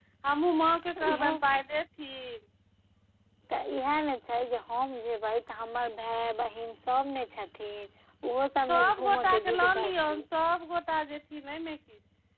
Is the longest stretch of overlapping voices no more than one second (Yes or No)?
No